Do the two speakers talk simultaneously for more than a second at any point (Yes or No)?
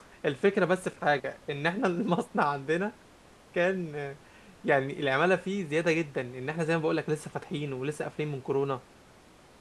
No